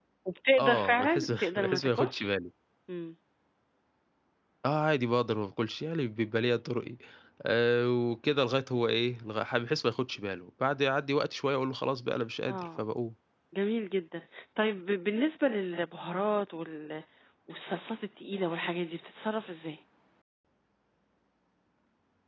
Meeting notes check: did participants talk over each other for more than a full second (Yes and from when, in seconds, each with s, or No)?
Yes, from 0.6 s